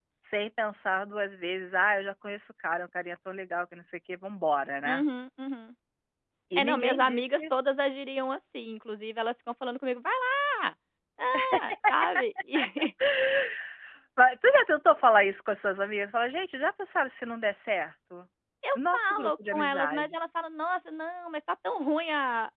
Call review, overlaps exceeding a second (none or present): present